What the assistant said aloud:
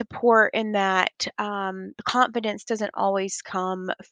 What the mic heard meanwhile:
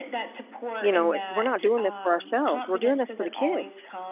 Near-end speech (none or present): present